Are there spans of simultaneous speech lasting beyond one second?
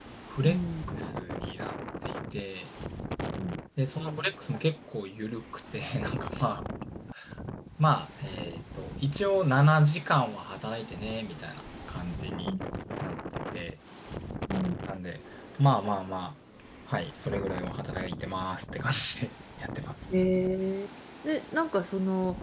No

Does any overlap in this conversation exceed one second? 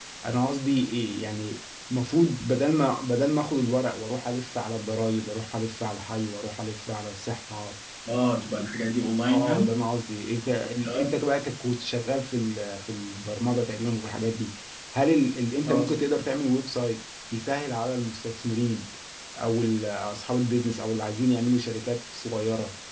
No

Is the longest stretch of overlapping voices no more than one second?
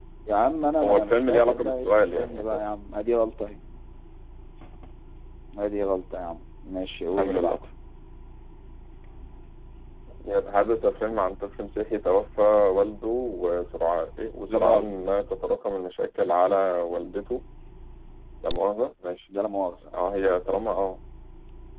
No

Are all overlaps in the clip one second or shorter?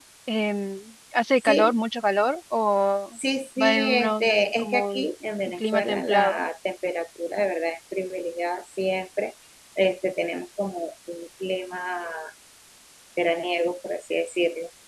No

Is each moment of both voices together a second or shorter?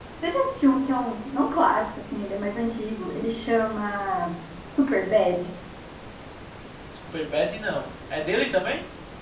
Yes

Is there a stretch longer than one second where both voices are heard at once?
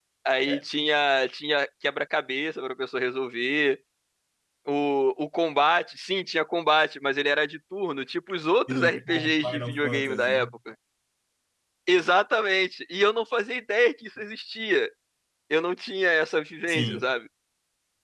Yes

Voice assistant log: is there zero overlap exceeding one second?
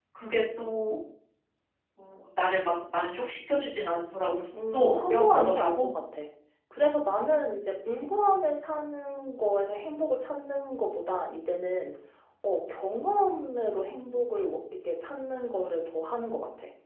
No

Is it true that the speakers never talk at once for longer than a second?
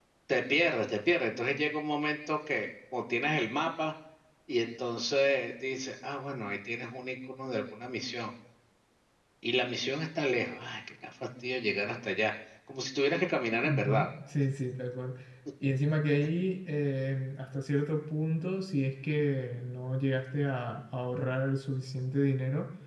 Yes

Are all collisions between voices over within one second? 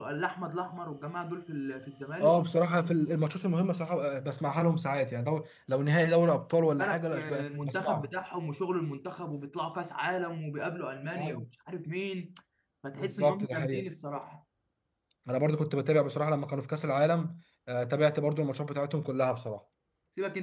No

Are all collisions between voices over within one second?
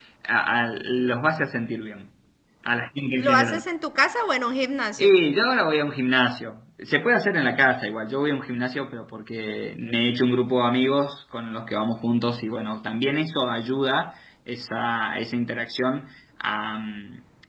Yes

